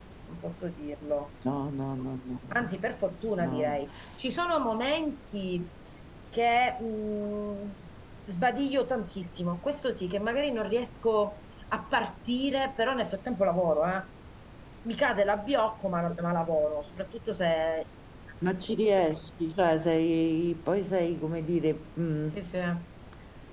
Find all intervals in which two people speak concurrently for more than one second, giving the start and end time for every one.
none

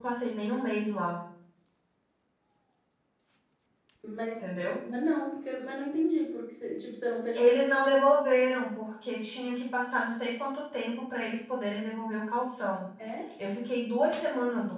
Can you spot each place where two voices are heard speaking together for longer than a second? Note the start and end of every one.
none

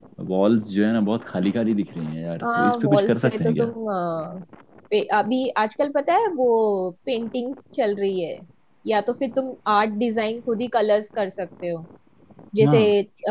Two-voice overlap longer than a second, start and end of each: 2.4-3.7

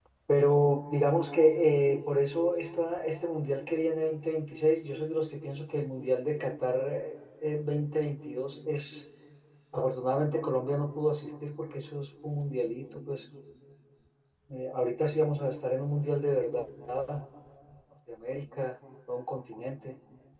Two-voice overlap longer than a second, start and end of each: none

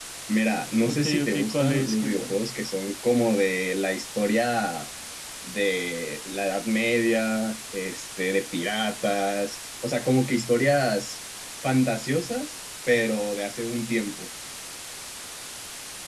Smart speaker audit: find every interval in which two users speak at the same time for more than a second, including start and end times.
0.8-2.4

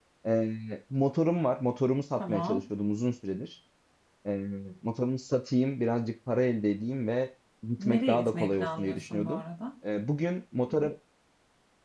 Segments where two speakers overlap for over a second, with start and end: 7.8-9.4

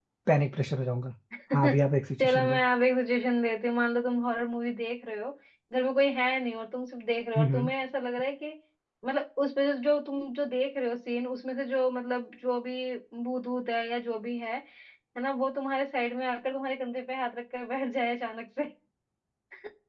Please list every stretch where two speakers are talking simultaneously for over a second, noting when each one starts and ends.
none

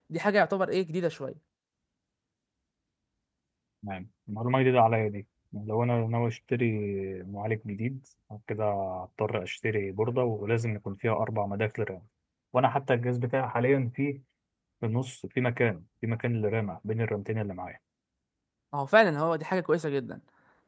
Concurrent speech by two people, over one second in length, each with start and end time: none

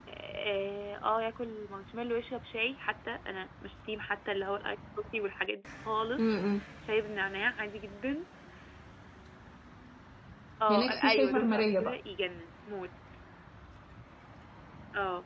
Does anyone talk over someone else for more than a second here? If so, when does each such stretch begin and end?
10.7-12.0

